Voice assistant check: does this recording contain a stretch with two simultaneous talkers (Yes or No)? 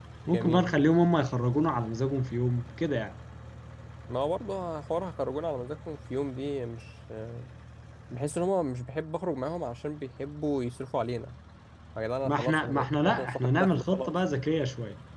Yes